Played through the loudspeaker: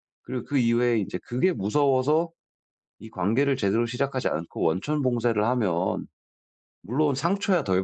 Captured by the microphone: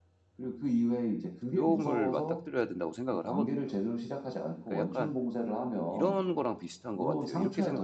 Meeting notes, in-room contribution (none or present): present